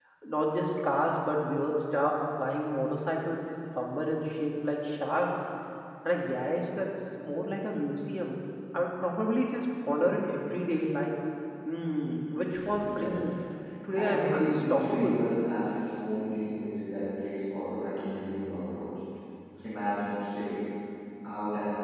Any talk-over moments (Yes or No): Yes